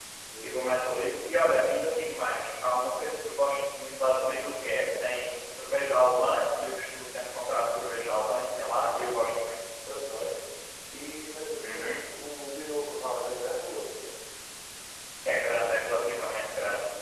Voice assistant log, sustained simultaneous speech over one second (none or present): none